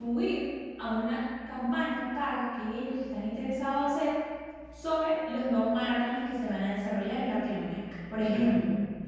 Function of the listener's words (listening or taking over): listening